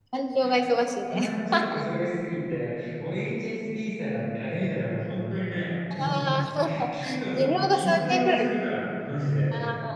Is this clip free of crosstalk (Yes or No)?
No